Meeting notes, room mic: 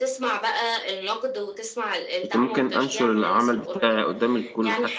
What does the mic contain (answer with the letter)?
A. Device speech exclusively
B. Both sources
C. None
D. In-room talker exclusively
B